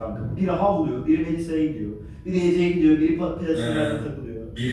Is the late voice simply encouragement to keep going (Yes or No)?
No